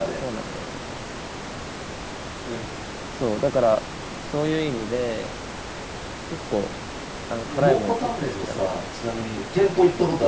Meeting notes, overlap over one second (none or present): present